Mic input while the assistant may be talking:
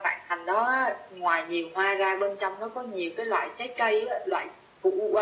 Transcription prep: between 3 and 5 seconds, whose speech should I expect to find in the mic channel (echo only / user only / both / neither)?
echo only